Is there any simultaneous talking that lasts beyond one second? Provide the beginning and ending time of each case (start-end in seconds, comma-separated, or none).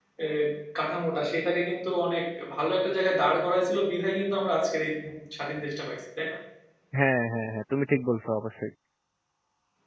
none